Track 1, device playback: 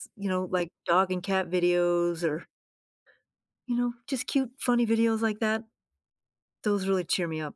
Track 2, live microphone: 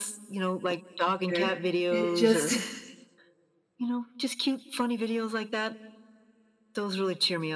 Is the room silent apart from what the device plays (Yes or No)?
No